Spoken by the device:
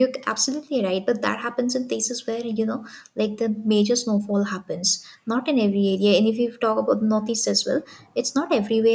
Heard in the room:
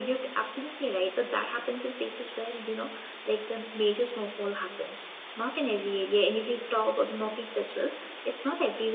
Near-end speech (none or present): none